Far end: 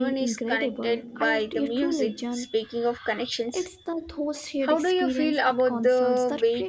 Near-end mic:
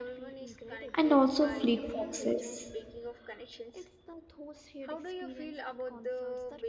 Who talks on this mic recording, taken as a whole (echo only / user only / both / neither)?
both